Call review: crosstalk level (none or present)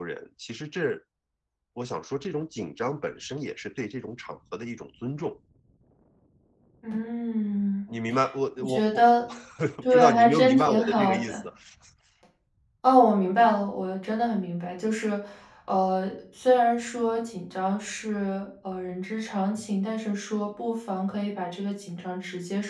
present